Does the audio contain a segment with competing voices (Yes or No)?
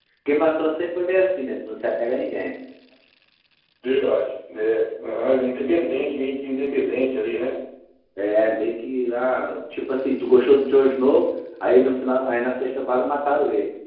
No